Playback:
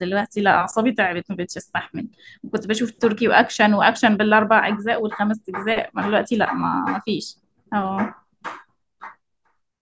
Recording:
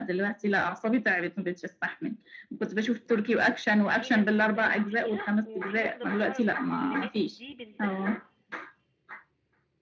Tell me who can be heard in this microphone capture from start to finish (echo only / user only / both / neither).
both